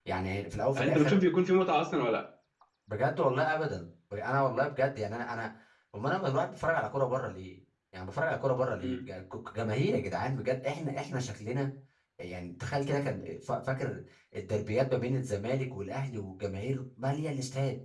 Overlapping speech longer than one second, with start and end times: none

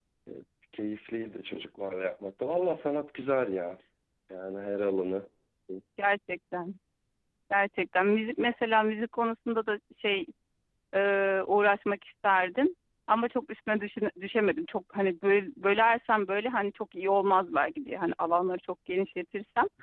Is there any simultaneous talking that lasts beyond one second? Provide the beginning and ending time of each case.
none

